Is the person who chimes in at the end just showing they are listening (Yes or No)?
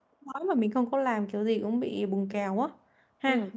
No